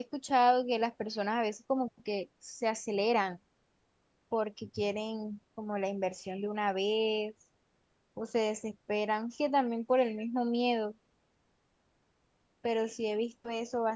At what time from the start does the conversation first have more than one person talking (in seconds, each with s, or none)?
none